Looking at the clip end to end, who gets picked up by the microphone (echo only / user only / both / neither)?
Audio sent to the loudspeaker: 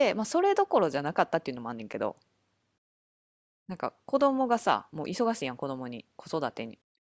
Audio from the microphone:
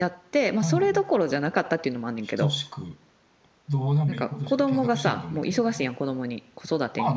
both